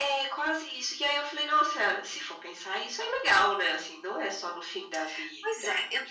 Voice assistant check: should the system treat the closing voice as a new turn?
Yes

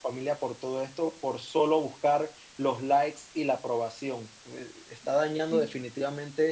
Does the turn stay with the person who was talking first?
Yes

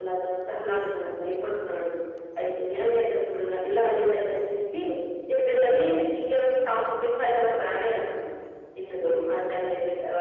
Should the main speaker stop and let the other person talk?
No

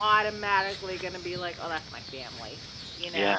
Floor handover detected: Yes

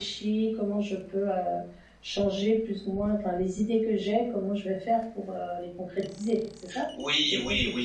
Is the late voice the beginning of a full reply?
Yes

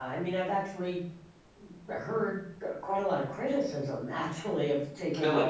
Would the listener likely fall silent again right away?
Yes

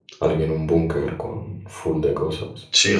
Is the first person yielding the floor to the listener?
Yes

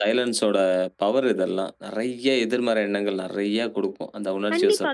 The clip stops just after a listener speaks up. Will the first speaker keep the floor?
No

